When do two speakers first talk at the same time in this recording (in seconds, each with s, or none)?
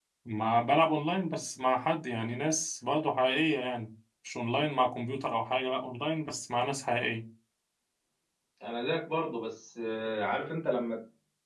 none